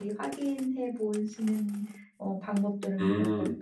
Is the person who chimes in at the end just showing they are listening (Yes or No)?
No